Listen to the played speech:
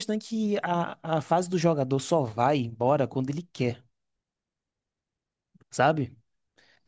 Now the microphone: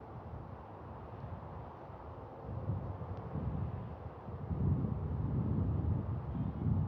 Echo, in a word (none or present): none